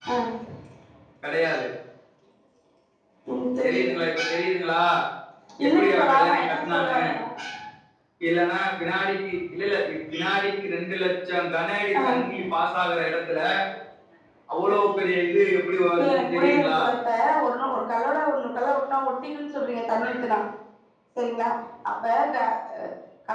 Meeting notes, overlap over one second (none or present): present